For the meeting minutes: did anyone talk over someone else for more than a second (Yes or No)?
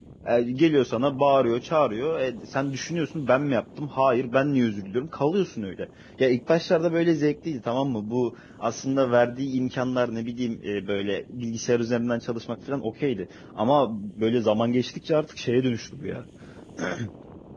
No